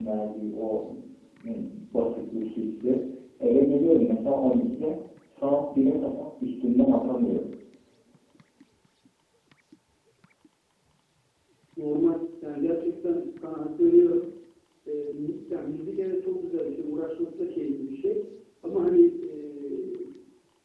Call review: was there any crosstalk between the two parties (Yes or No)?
No